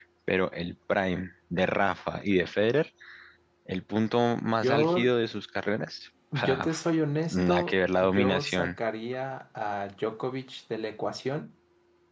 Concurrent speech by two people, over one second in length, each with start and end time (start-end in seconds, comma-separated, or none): 7.3-8.8